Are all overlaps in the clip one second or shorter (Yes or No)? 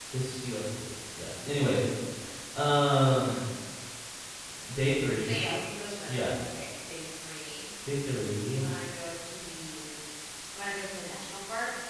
Yes